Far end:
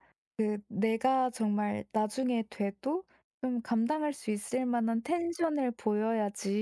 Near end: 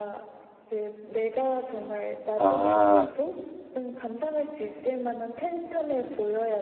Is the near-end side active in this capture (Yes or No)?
Yes